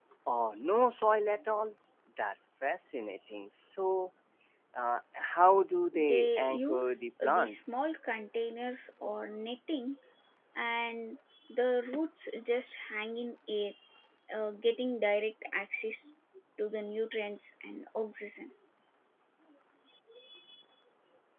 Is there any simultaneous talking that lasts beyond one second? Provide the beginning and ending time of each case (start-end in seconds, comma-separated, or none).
5.9-7.7